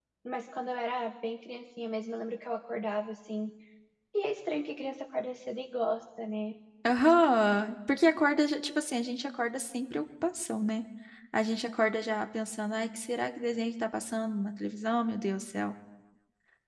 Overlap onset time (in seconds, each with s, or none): none